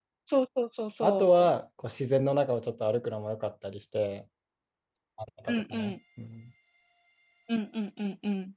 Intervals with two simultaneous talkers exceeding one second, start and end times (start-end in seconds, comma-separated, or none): none